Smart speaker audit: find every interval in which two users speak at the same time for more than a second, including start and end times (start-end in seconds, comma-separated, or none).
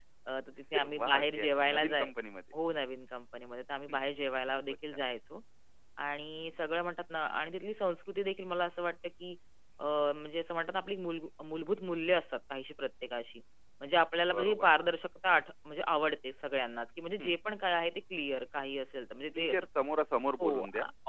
0.7-2.1